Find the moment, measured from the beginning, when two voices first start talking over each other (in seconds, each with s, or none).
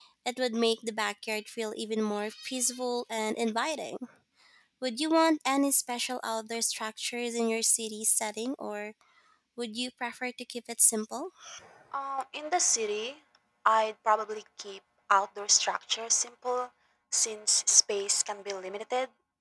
none